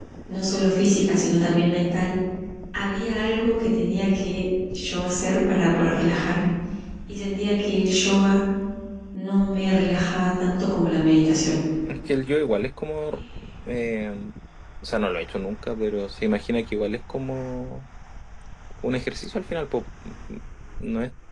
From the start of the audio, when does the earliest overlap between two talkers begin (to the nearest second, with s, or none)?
none